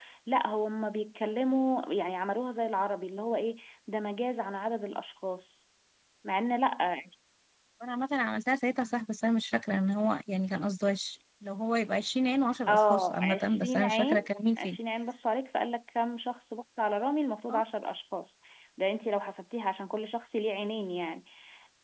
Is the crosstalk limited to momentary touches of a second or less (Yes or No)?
No